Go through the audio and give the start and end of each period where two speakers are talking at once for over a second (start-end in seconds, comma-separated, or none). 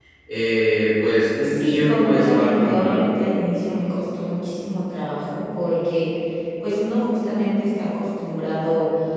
1.4-3.0